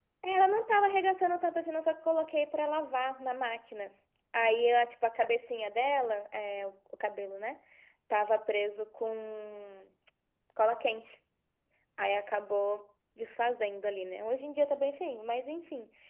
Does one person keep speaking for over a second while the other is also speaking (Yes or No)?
No